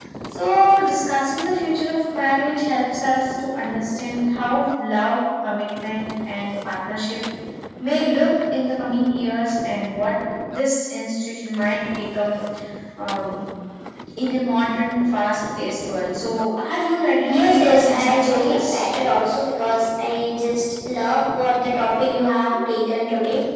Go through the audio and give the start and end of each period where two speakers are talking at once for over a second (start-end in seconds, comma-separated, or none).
17.2-18.9